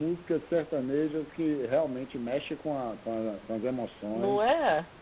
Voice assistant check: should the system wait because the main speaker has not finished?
No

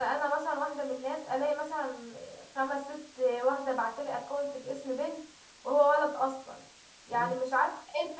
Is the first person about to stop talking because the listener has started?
No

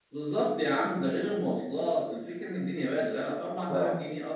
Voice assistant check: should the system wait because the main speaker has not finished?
Yes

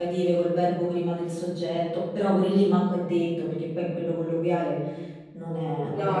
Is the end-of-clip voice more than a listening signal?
Yes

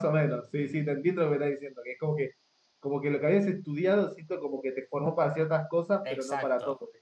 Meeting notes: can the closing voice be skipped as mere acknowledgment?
No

